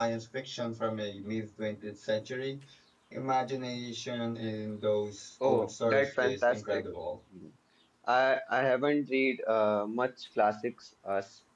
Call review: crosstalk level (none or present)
present